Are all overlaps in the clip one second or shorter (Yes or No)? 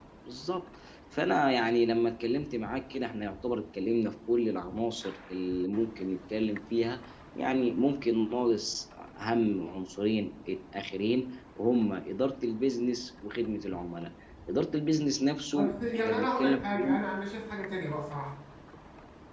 No